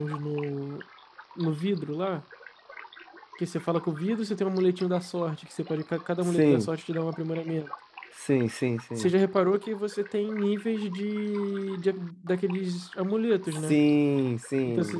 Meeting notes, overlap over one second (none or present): none